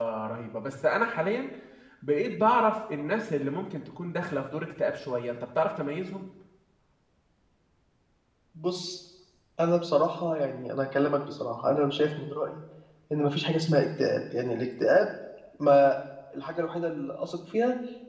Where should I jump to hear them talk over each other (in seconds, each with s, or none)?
none